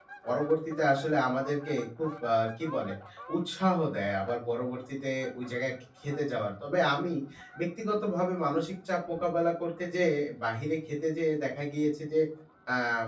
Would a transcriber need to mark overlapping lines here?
No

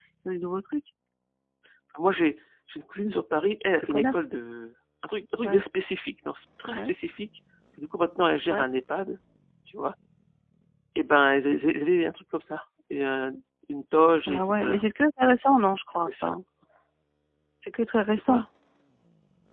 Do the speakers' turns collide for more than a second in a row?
No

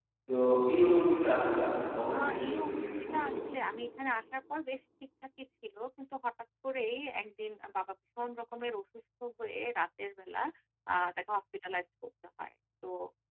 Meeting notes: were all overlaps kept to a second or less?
No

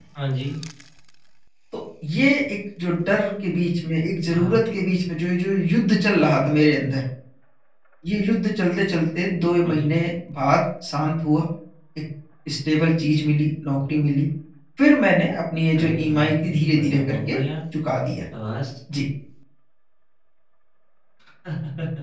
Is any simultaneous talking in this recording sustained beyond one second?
Yes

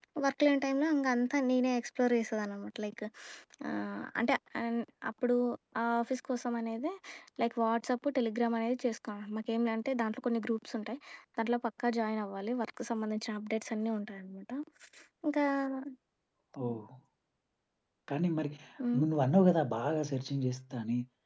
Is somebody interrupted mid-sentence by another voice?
No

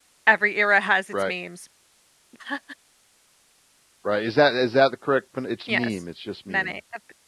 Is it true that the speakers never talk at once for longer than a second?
Yes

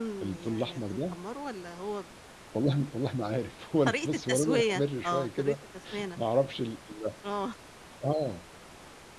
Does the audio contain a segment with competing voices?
Yes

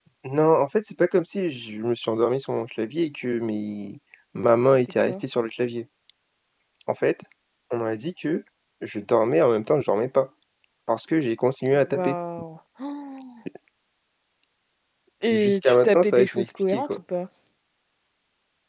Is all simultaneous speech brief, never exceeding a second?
No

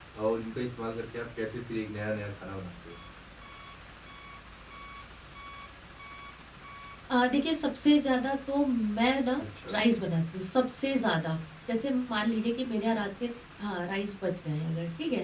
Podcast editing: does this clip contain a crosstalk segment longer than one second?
No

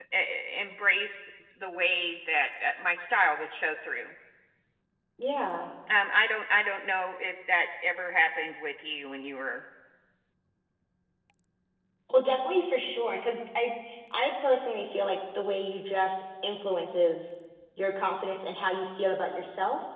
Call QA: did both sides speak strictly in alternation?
Yes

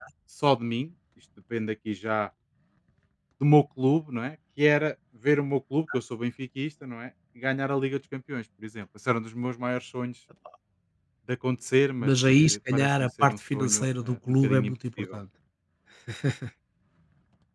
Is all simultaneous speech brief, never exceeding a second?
No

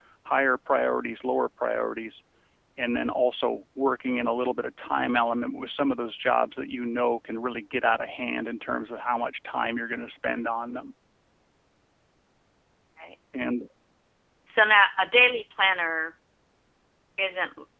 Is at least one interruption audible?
No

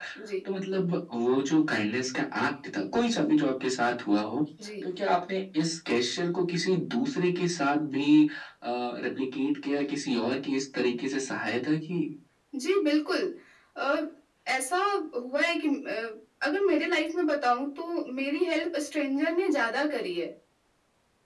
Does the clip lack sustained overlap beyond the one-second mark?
Yes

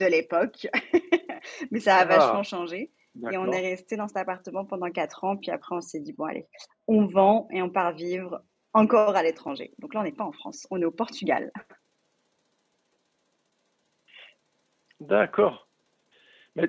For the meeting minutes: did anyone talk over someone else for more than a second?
No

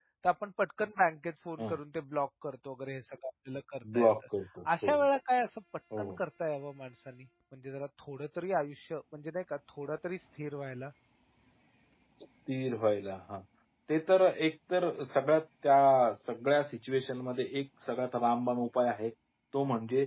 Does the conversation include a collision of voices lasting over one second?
No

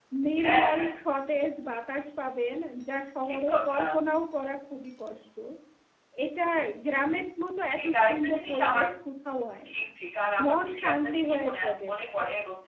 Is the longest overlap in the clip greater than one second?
Yes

